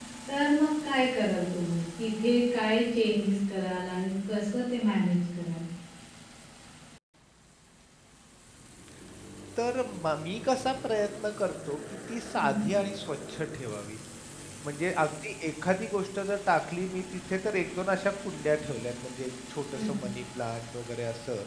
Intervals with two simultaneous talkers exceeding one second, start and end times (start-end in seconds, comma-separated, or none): none